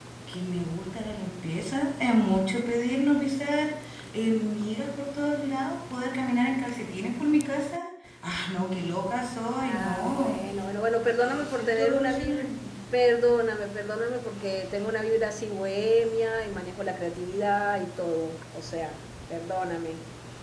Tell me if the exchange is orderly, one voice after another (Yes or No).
No